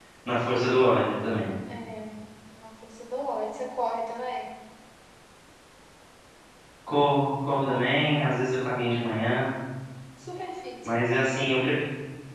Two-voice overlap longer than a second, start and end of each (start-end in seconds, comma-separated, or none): none